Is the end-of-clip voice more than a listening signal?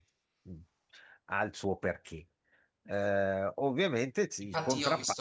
Yes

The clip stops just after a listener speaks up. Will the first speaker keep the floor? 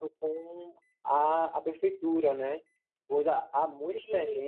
Yes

